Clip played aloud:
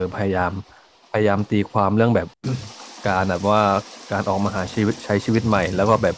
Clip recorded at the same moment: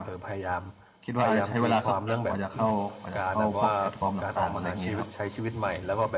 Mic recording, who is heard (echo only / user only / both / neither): both